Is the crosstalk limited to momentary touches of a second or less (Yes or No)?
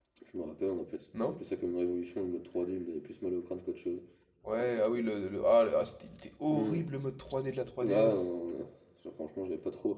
Yes